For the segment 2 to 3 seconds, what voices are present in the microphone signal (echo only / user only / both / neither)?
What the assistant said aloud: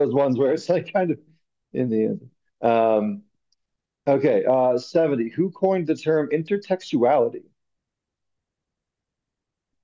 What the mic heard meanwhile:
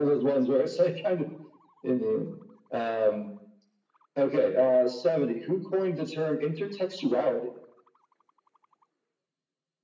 echo only